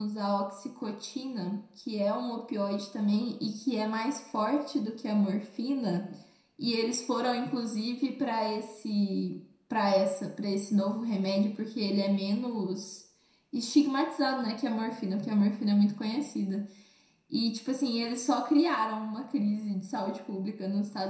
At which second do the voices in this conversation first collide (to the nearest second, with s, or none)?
none